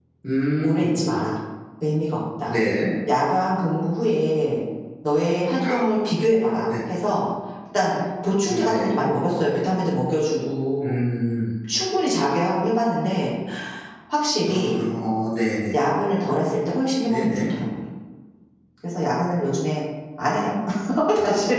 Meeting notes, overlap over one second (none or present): none